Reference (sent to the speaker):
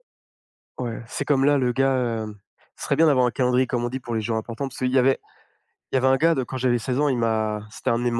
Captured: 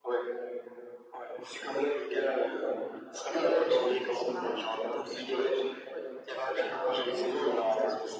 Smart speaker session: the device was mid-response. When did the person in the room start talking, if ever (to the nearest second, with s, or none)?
3 s